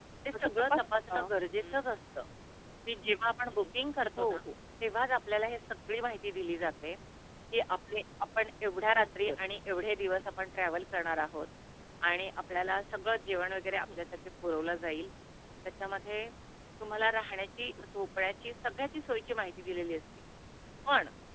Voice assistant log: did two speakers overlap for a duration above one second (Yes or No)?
Yes